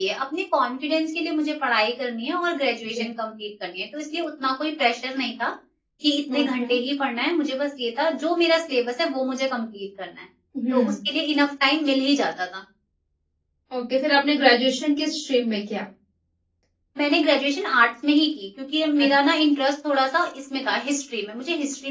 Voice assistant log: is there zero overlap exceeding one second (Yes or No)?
Yes